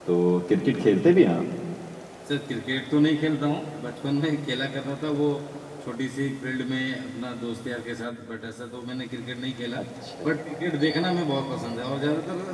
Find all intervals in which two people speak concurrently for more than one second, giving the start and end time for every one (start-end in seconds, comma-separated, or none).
none